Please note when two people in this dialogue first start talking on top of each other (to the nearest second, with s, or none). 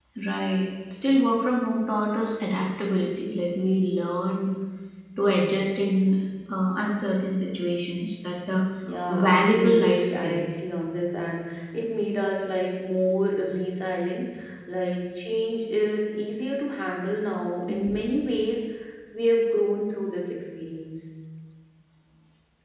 9 s